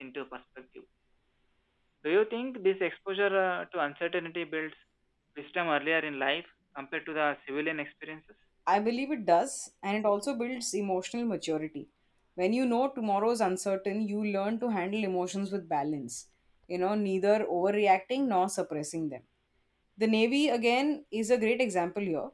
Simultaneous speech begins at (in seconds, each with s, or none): none